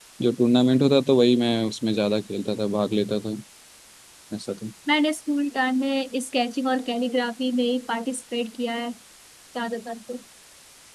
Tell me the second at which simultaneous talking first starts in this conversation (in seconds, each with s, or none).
none